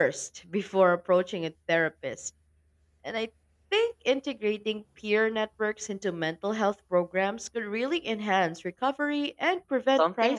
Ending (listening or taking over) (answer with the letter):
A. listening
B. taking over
B